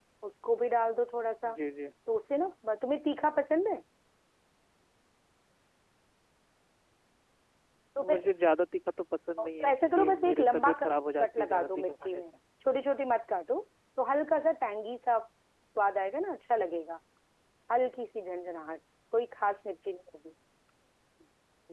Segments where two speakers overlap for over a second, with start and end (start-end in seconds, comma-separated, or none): 9.4-12.2